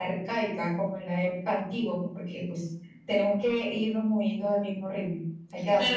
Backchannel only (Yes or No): No